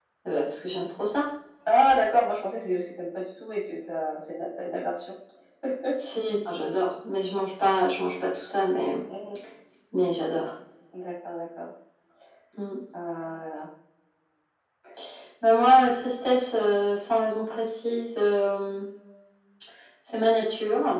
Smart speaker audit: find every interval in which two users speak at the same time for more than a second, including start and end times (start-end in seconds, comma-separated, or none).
none